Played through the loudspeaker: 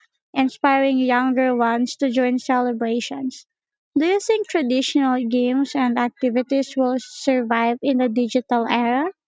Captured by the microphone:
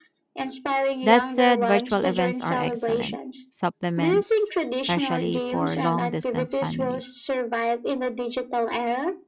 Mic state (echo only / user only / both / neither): both